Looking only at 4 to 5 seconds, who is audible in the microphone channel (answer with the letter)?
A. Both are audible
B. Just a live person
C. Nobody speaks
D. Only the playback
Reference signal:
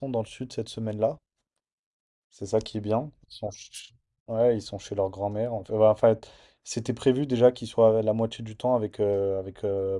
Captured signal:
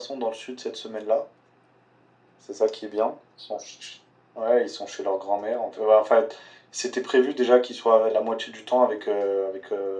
D